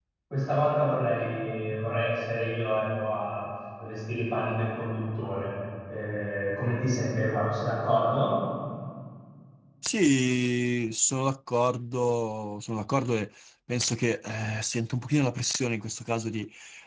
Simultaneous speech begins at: none

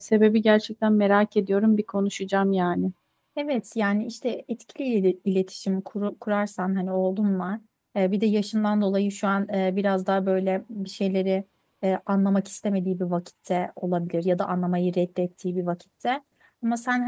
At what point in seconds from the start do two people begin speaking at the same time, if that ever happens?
none

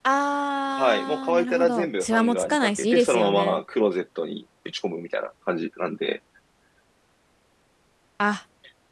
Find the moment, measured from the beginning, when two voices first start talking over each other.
0.8 s

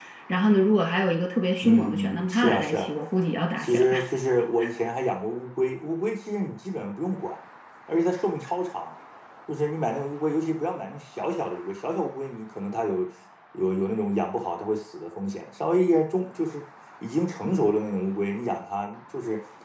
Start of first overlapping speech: 1.6 s

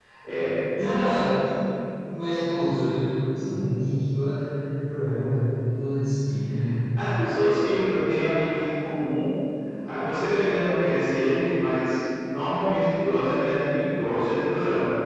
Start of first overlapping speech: none

